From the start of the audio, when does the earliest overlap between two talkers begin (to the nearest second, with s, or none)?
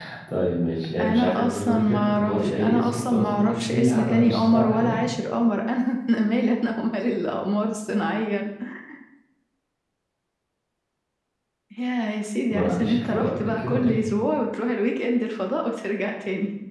1 s